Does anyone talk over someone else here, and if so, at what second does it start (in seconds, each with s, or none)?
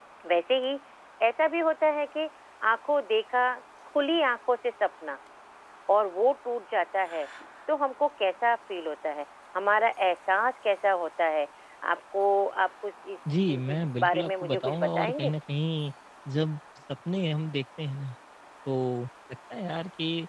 13.2 s